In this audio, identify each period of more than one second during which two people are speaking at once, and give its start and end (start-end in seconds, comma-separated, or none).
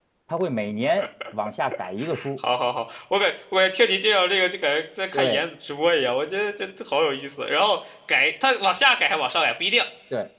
none